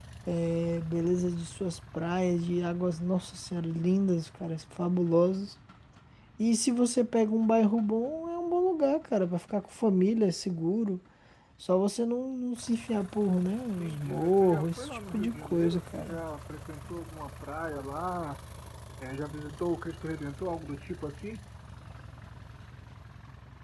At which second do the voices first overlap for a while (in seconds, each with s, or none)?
13.8 s